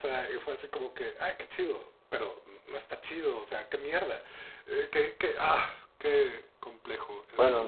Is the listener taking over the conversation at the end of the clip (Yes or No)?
Yes